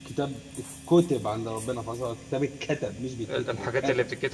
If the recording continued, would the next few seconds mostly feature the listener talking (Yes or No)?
Yes